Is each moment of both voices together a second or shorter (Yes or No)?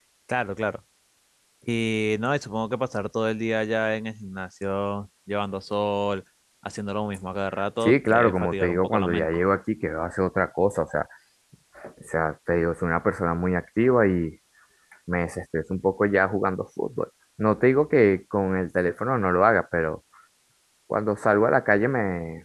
No